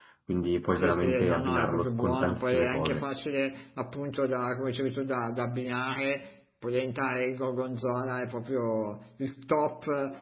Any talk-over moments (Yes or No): Yes